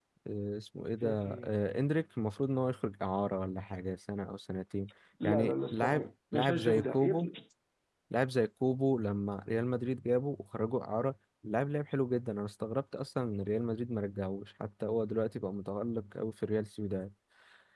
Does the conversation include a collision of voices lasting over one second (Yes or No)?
Yes